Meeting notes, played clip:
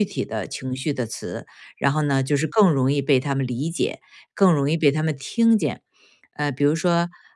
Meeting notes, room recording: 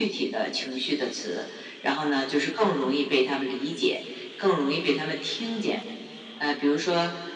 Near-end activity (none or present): none